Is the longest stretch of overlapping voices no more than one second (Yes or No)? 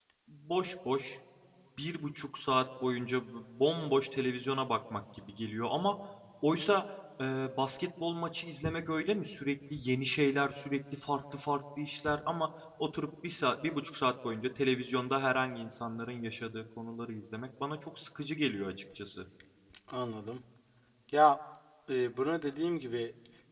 Yes